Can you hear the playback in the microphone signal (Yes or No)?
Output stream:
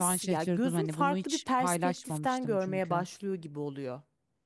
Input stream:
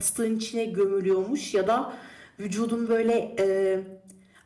No